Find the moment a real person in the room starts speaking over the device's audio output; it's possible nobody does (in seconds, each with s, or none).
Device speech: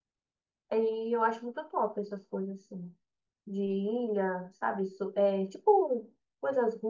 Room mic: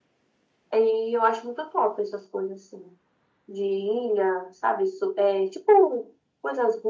none